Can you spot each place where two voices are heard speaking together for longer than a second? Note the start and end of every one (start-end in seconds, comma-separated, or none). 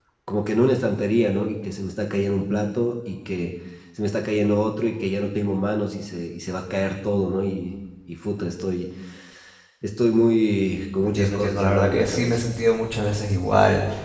11.0-12.4